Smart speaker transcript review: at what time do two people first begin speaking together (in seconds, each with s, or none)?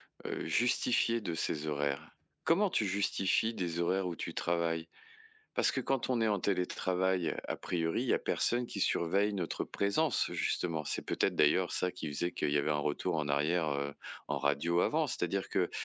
none